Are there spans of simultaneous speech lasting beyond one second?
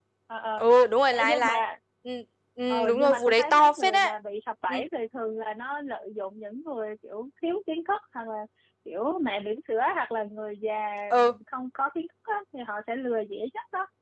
Yes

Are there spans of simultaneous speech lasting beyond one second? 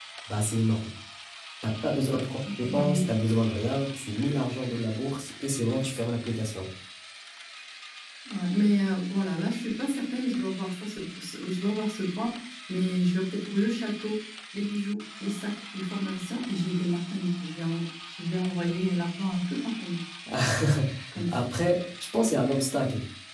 No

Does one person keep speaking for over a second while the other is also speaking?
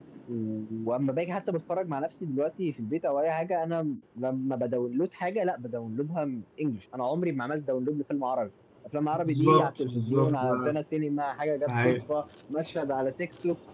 Yes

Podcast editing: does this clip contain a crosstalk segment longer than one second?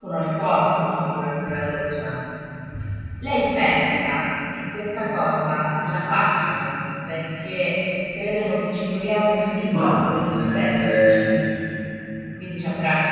Yes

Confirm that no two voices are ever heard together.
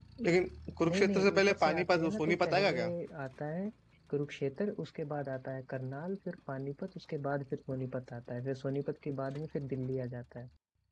No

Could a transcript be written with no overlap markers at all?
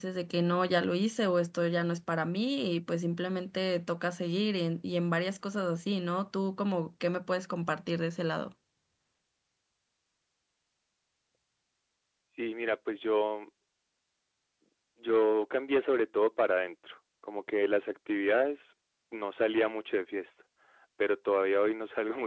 Yes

